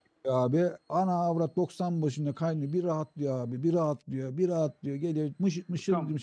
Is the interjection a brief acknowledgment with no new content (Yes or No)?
No